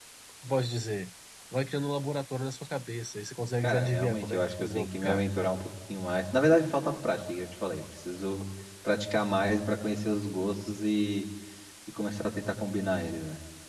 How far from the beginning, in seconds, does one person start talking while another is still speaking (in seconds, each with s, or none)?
3.6 s